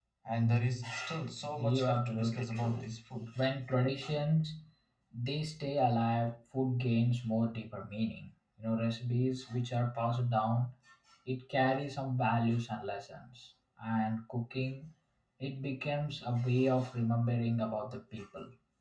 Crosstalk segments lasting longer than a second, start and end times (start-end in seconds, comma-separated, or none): 1.6-2.9